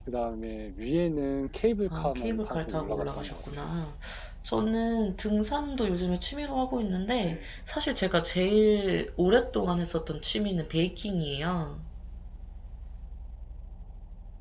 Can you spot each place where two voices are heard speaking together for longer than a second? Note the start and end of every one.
1.9-3.7

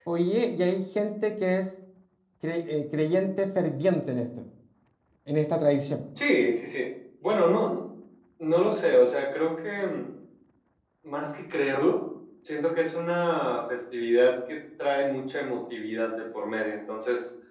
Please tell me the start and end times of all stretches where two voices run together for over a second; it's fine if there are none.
none

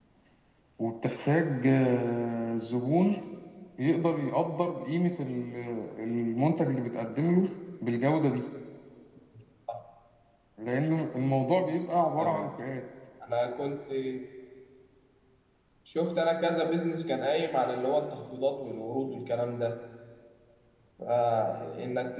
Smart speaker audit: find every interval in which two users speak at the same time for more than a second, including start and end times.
none

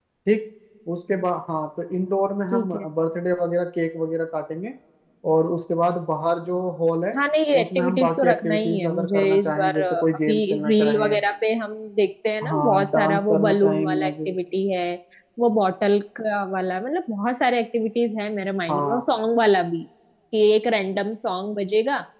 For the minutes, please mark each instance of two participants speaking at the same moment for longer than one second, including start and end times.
7.6-11.2, 12.4-14.4

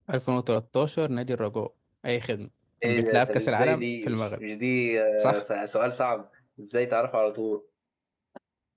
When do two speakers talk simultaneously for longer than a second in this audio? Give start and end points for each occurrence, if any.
2.8-4.4

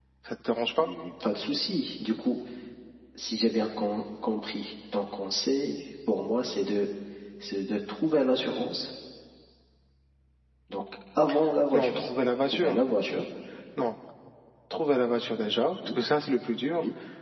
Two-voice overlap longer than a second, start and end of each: none

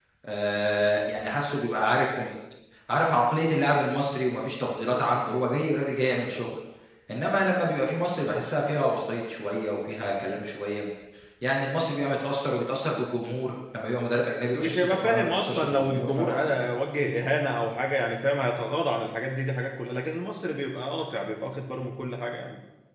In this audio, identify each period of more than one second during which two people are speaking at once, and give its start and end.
14.6-16.5

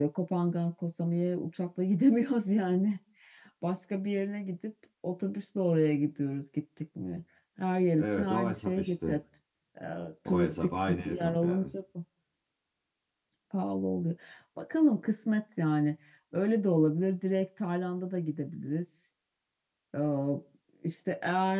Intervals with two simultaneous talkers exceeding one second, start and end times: 8.0-9.2, 10.2-11.7

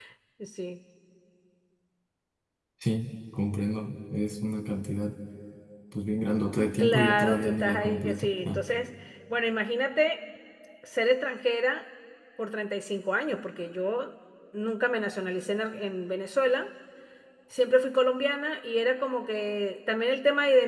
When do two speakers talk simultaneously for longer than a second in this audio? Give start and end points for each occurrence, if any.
6.8-8.6

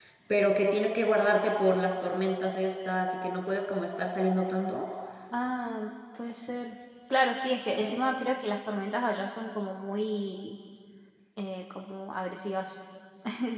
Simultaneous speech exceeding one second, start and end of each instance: none

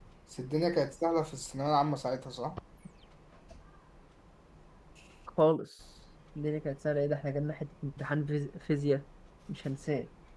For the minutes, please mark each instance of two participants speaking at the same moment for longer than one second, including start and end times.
none

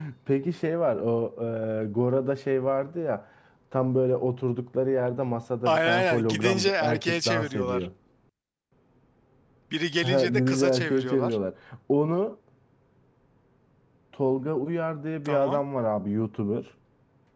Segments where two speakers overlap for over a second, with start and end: 5.7-7.9, 10.0-11.4

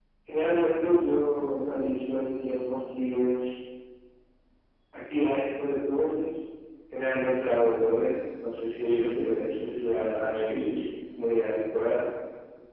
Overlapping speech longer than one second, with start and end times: 8.9-10.9

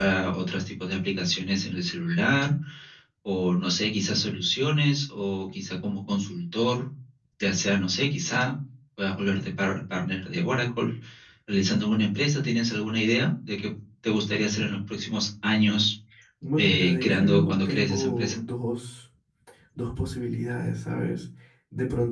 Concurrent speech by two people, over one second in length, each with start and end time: 16.6-18.4

